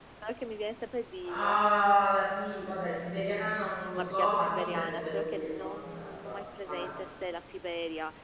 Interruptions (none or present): present